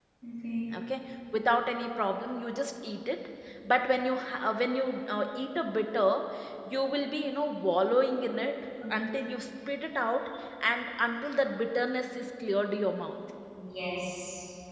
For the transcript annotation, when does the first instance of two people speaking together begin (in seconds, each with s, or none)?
none